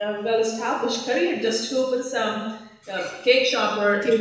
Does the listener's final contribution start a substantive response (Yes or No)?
No